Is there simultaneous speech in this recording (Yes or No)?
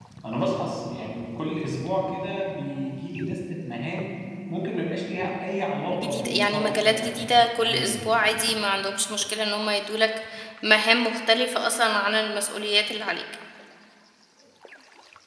Yes